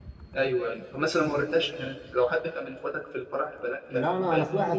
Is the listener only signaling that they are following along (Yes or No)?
No